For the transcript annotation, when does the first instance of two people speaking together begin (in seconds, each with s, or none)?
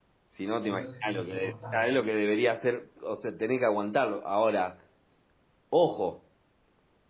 0.6 s